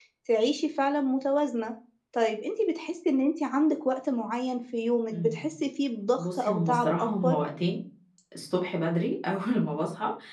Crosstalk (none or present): present